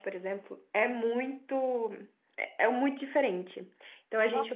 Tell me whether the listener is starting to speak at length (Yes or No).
Yes